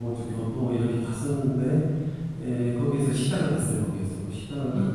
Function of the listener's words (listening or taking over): listening